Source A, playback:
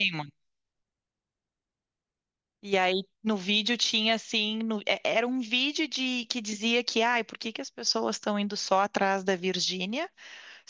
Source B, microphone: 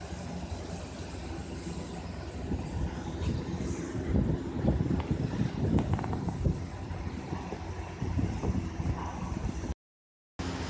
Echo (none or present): none